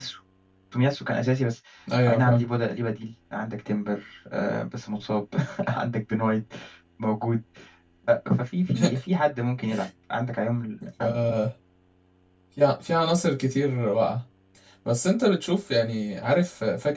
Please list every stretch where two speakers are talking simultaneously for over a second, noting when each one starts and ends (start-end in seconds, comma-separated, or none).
none